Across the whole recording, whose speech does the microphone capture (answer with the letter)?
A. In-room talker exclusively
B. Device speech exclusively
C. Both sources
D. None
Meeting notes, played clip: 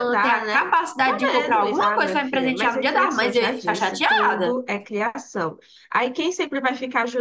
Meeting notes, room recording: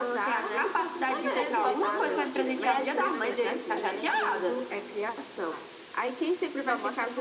C